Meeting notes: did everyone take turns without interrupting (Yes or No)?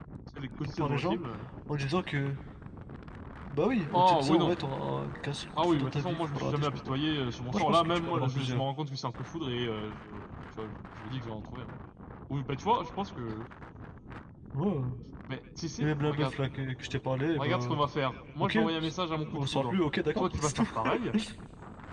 No